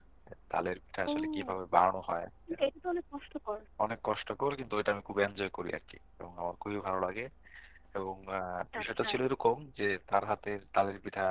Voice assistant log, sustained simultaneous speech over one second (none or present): none